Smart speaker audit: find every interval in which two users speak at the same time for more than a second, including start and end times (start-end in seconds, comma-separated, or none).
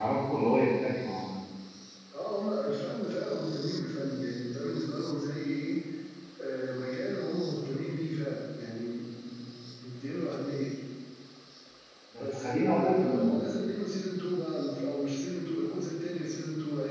12.2-13.4